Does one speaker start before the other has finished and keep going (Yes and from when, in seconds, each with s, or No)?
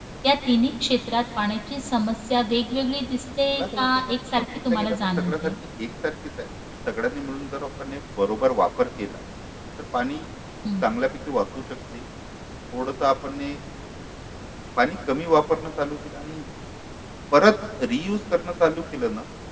Yes, from 3.5 s